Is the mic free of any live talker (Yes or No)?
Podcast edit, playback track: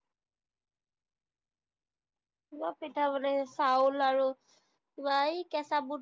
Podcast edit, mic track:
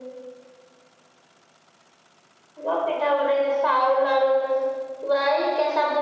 Yes